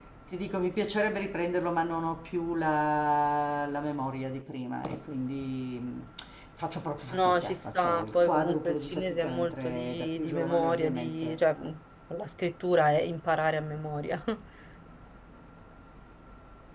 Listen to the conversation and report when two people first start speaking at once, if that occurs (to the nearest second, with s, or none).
7 s